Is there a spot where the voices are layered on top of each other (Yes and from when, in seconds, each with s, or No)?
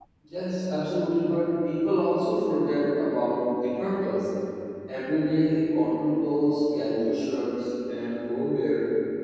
No